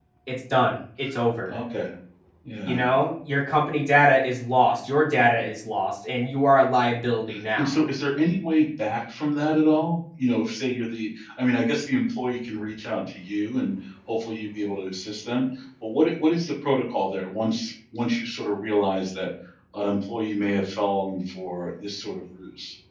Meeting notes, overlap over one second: none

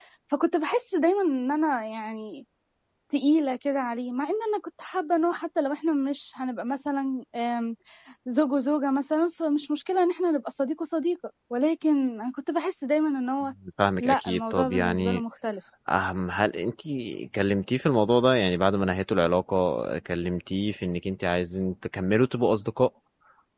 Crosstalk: present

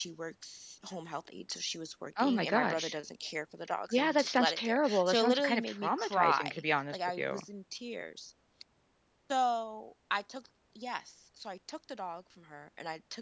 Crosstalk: present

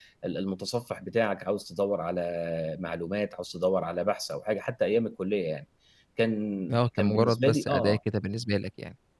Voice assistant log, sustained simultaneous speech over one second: present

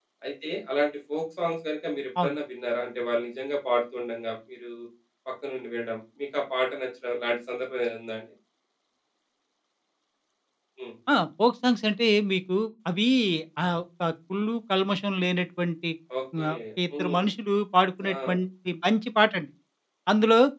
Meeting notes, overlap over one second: none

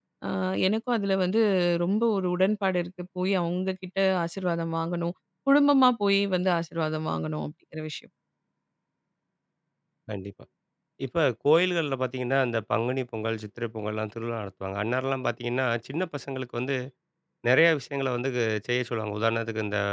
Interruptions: none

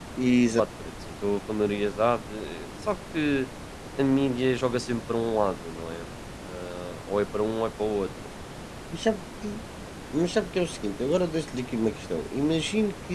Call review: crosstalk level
none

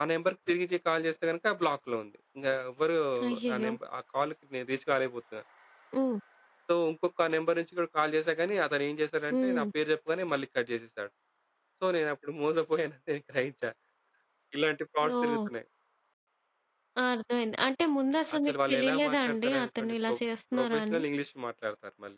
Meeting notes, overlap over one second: present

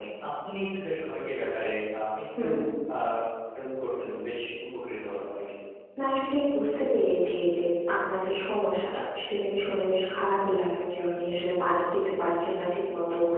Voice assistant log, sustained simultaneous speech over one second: none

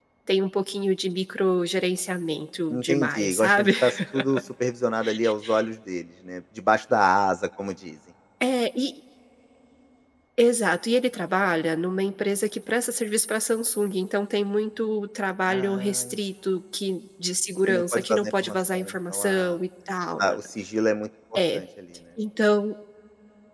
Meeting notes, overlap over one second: present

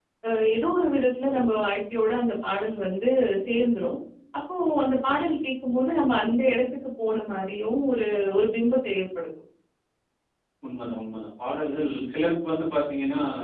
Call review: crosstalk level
none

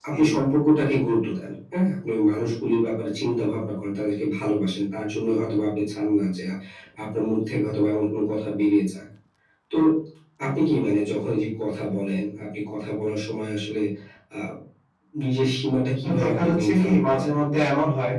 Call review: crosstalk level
present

